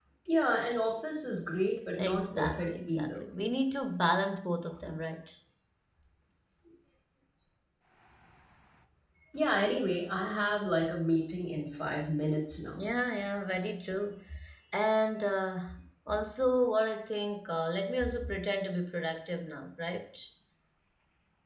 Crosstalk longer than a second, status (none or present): present